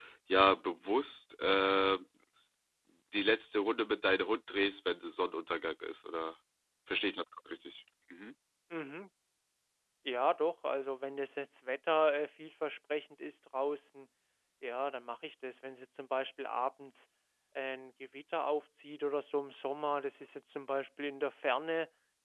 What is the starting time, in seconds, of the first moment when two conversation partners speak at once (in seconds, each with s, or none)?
none